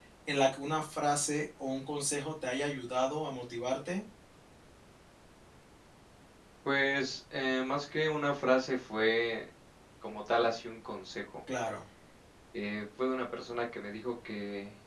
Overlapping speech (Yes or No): No